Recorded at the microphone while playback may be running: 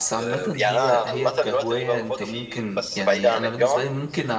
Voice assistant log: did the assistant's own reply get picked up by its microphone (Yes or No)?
Yes